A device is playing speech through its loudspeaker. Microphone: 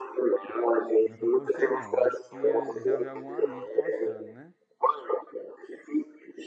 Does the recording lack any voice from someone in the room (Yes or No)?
No